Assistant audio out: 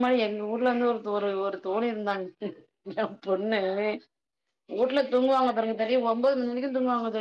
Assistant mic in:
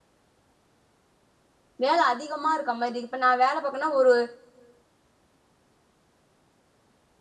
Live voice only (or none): வேல அதிகமா இருக்க மாரி இப்ப நா வேல பாக்கனா ஒரு